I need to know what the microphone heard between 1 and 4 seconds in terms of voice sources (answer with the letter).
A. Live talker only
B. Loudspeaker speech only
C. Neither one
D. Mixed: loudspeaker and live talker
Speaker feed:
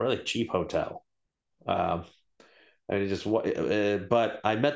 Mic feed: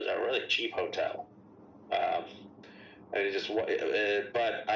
B